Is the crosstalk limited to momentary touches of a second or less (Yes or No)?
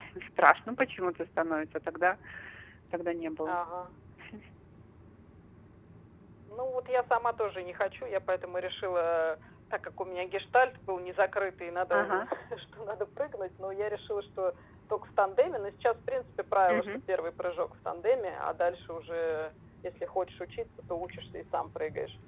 Yes